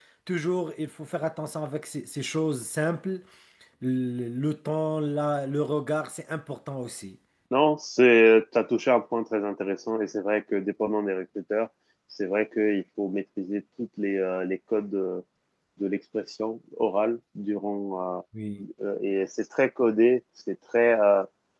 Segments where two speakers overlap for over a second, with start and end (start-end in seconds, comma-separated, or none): none